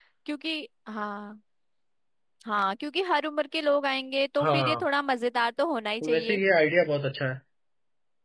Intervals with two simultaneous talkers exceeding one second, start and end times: none

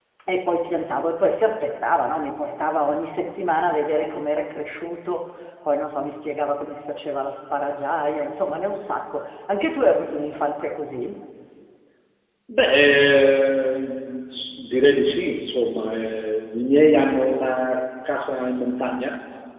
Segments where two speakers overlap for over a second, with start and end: none

